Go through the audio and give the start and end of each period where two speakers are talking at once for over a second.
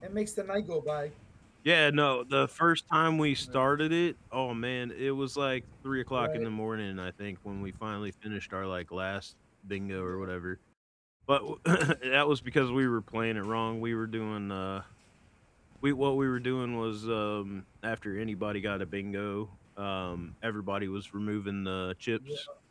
none

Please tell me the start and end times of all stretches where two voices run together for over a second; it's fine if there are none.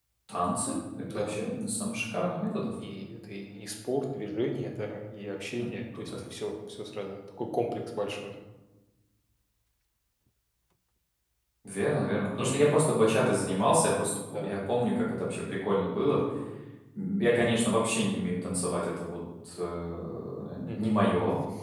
none

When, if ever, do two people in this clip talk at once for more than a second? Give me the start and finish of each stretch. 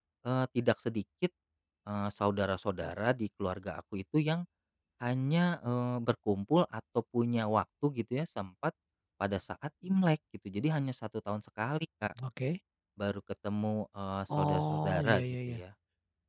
14.4-15.6

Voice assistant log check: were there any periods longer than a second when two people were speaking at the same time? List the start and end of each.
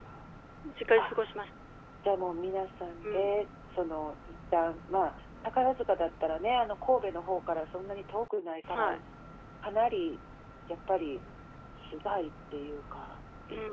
none

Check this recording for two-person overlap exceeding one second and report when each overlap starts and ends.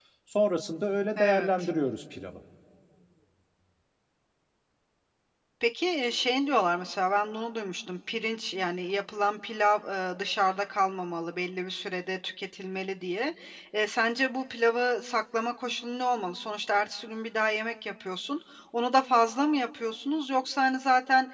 none

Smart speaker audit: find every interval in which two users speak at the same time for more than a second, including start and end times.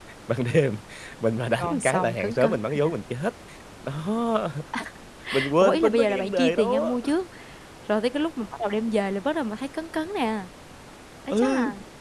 1.6-2.9, 5.6-7.0

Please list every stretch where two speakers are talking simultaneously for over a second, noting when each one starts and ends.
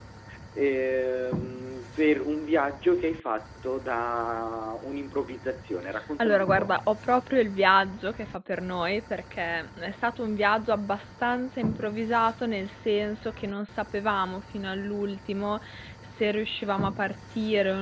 none

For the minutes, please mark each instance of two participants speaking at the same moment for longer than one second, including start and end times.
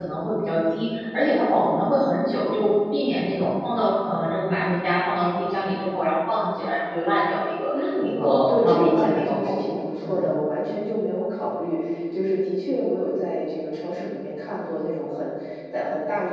7.8-10.3

